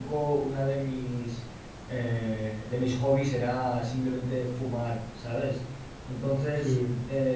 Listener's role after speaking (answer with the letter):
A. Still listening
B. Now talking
A